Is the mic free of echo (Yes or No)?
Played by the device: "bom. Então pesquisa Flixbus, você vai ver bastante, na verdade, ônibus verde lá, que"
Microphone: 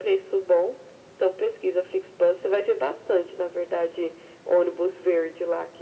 No